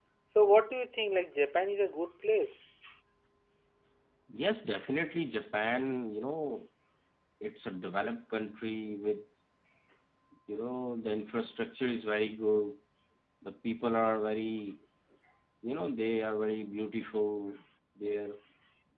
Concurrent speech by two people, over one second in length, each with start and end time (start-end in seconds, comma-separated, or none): none